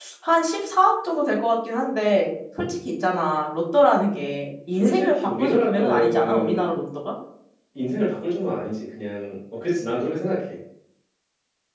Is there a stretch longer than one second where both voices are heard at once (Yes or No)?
Yes